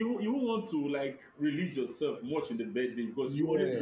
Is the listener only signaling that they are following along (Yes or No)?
Yes